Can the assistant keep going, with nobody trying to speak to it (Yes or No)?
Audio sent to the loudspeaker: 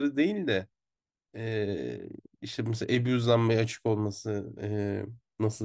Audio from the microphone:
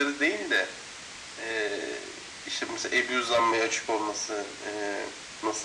Yes